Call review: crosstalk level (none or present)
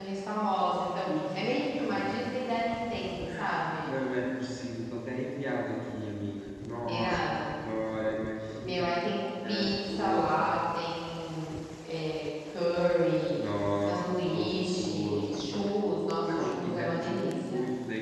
present